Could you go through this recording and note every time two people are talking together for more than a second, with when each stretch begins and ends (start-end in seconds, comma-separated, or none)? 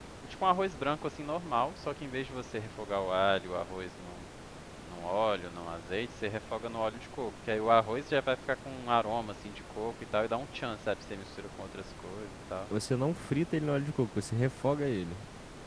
none